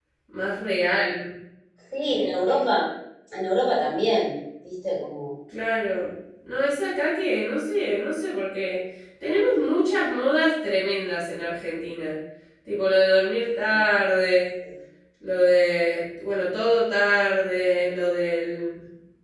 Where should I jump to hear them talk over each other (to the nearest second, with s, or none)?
none